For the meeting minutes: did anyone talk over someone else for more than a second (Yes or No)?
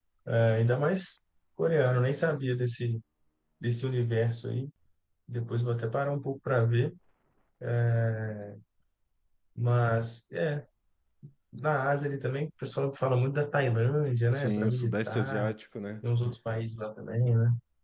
Yes